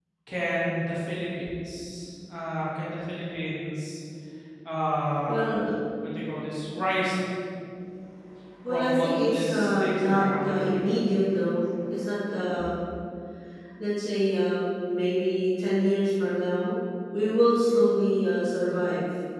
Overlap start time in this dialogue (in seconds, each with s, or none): 8.7 s